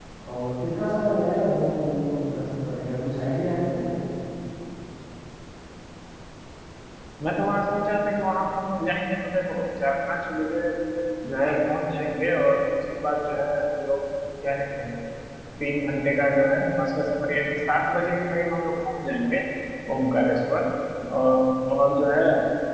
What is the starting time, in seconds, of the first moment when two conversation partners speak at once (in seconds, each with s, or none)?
none